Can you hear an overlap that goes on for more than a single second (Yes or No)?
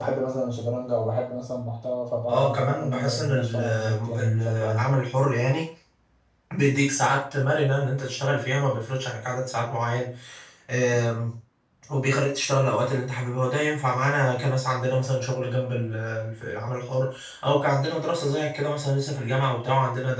Yes